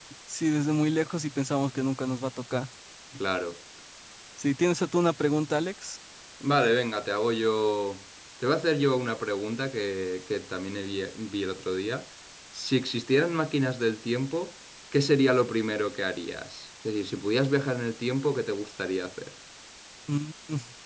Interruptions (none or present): none